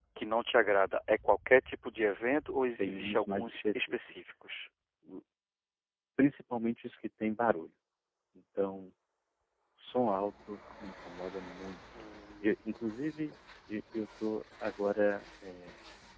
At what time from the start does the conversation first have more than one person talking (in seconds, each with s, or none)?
2.8 s